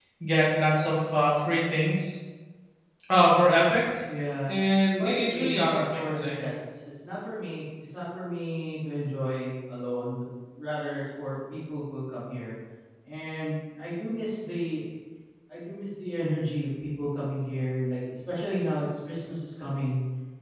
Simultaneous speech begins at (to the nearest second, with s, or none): 5 s